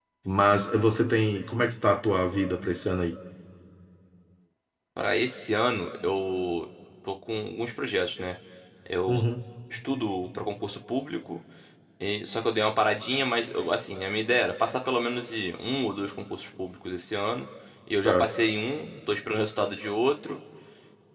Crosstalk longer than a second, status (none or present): none